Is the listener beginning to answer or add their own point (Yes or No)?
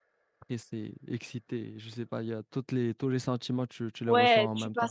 Yes